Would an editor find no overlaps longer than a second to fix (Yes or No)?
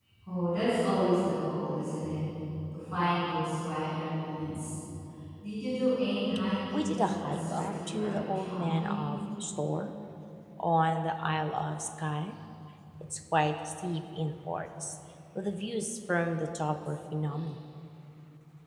No